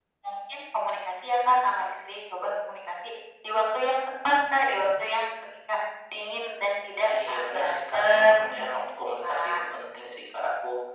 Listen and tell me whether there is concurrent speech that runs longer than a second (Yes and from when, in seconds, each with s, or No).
Yes, from 7.0 s